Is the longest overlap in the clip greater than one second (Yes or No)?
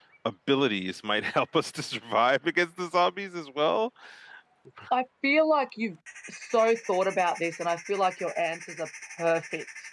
No